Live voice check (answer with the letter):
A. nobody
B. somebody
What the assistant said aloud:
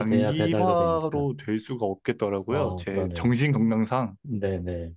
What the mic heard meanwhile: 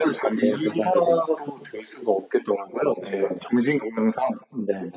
B